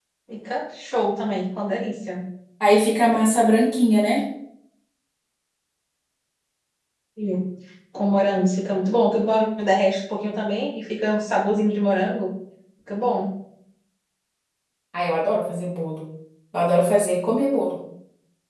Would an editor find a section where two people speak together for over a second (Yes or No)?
No